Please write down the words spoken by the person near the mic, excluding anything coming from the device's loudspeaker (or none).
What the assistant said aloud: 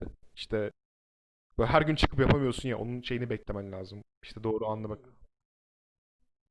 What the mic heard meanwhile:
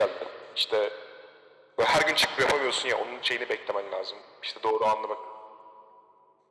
none